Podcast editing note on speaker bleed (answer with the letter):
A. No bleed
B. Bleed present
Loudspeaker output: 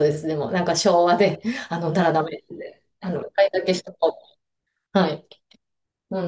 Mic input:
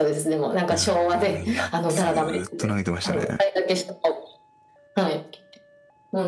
B